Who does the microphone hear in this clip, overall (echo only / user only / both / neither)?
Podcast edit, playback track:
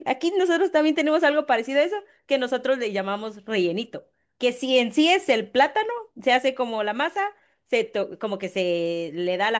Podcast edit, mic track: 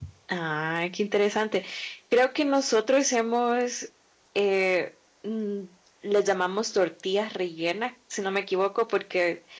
user only